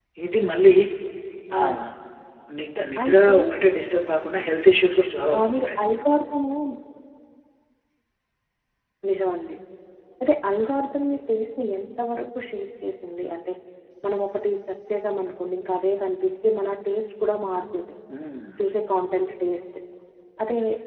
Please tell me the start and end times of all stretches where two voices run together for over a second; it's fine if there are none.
none

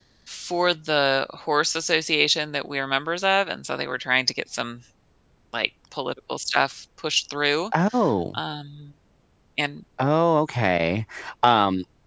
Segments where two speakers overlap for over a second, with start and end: none

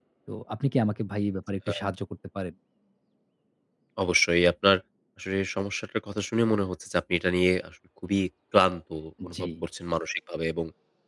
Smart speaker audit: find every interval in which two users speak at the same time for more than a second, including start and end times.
none

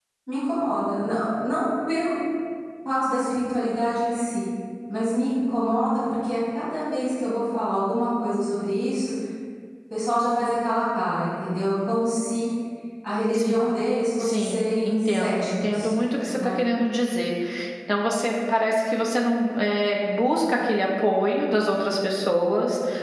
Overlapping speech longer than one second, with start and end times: 14.2-15.9

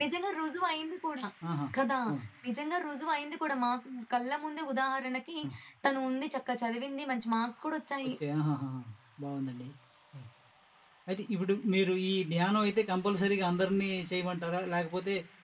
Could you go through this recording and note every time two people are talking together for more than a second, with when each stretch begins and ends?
none

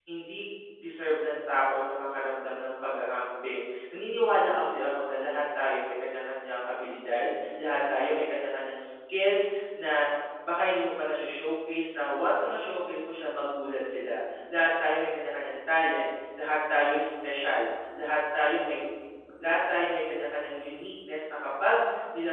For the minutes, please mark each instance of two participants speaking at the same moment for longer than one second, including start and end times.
none

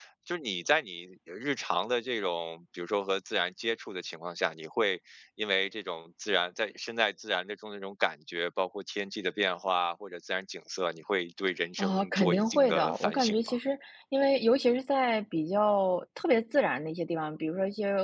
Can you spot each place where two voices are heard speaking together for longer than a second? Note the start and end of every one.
11.8-13.5

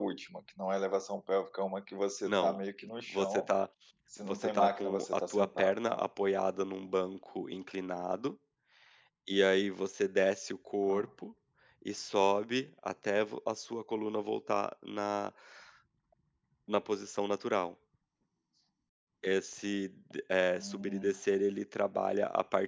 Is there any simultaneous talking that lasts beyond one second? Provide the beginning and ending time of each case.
4.2-6.0

